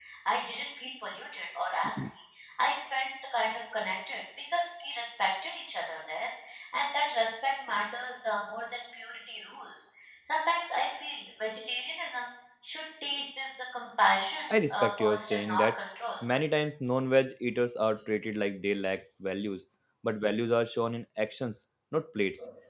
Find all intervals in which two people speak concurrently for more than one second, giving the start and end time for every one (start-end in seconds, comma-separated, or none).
14.5-15.8